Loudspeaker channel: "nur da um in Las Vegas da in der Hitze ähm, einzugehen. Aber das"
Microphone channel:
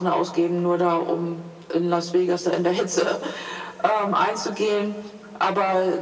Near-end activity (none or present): none